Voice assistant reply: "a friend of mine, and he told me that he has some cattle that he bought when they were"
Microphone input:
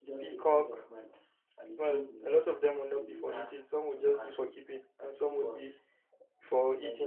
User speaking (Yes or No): Yes